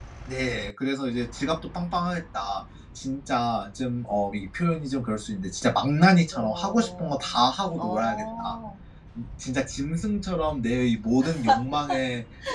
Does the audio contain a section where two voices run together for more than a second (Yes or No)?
Yes